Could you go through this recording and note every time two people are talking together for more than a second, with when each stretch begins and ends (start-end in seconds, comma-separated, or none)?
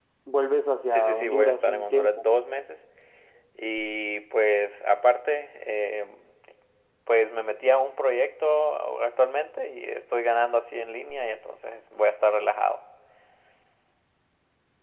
0.9-2.3